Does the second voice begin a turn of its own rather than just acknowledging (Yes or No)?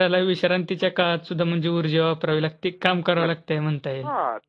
Yes